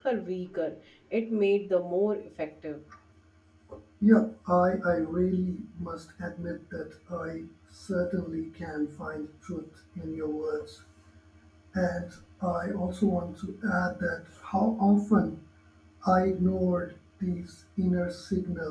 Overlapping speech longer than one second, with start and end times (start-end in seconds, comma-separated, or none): none